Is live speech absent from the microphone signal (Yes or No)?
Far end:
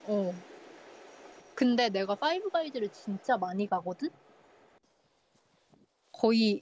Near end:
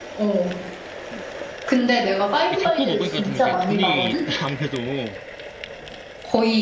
No